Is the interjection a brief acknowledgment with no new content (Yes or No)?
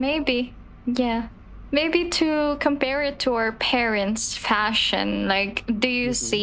Yes